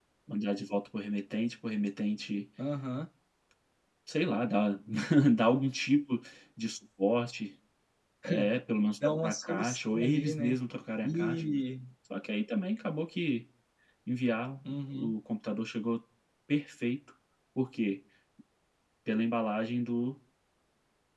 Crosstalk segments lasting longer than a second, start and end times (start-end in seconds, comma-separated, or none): 9.0-10.6